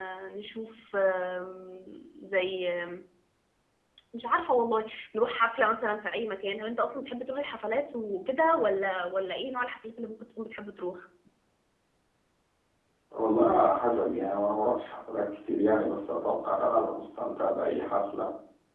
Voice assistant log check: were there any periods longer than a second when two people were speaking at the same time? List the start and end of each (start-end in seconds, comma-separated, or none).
none